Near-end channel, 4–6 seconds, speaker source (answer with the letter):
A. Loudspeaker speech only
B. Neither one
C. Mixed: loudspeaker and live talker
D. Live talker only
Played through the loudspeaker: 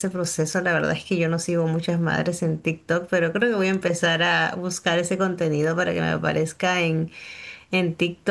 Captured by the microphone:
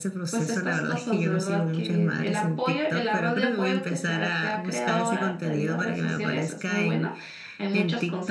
C